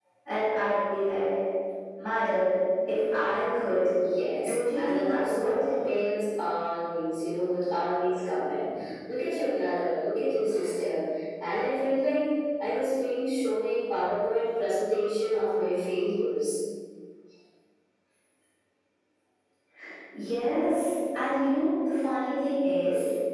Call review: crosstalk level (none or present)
present